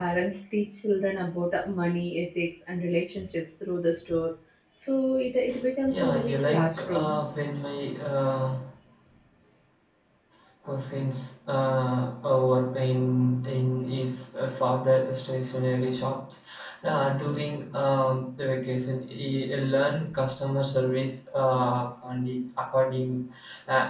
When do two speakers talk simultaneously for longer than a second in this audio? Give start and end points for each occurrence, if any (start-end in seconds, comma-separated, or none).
5.9-7.2